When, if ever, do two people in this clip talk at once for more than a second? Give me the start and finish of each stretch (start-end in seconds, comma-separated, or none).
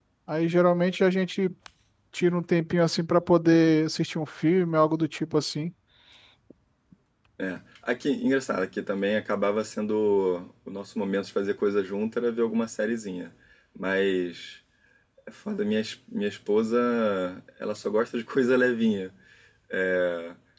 none